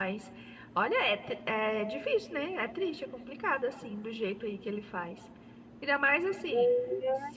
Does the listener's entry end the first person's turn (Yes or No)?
No